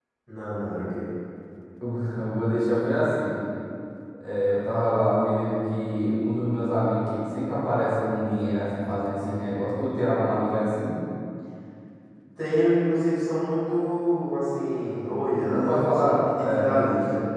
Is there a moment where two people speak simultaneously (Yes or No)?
Yes